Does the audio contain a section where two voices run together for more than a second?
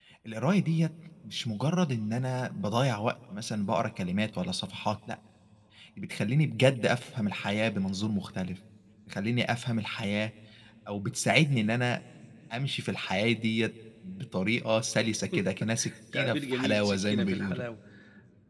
Yes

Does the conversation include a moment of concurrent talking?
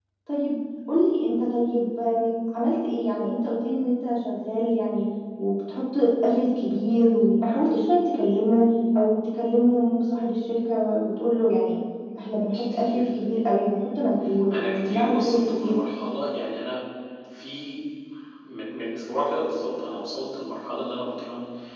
Yes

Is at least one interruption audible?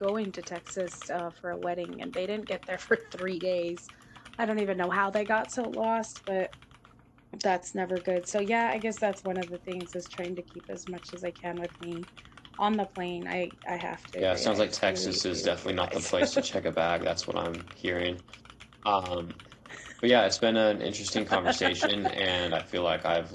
Yes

